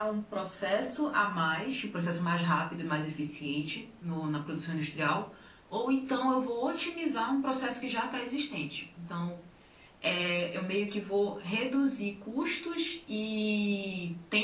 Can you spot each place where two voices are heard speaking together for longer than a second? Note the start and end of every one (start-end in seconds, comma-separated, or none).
none